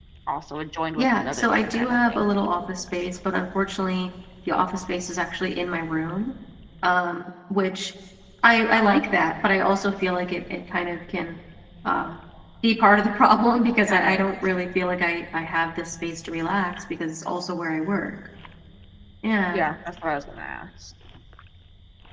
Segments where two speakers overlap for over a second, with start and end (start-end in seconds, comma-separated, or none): 1.0-2.3